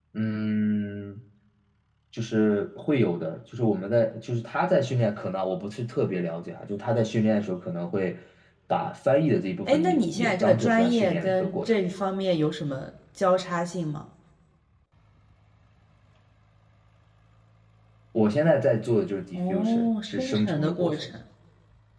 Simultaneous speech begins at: 9.7 s

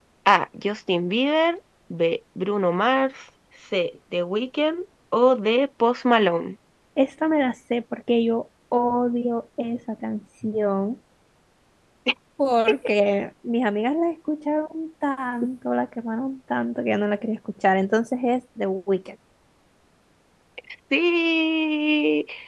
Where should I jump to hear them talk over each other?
none

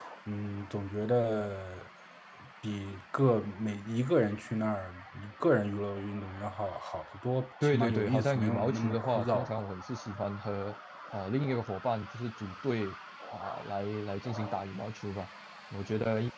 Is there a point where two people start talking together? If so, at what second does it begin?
7.6 s

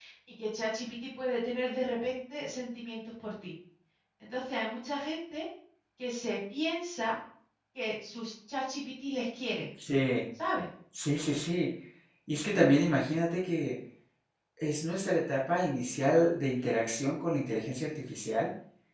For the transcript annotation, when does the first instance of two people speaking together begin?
none

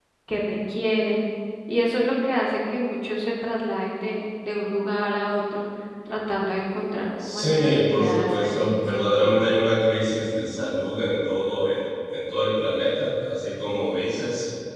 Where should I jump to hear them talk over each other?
7.2 s

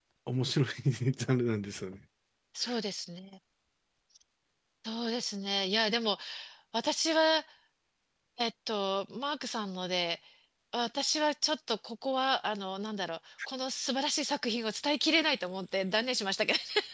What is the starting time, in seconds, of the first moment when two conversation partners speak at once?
none

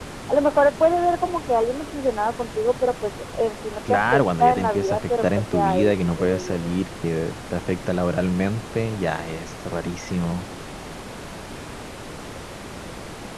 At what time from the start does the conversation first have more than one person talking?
3.9 s

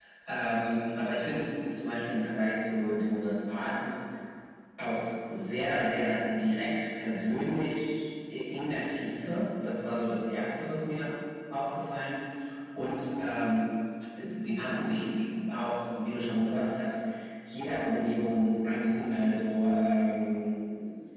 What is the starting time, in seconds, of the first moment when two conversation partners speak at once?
none

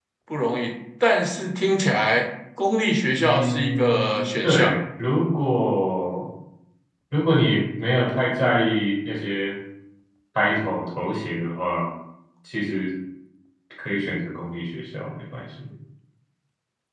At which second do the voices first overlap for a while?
3.2 s

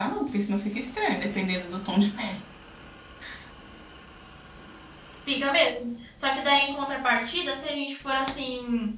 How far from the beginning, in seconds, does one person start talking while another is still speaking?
none

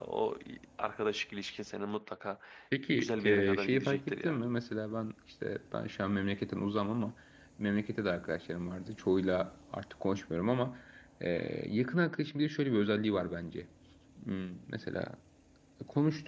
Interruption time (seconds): 2.9 s

